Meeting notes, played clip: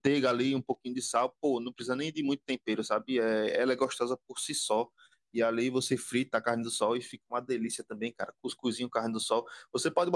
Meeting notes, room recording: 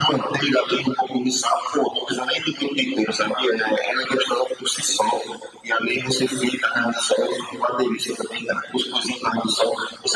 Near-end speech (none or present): none